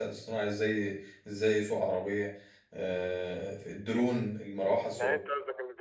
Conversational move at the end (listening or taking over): taking over